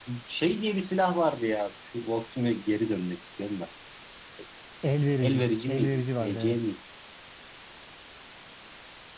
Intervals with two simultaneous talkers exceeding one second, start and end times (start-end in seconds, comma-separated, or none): 5.3-6.6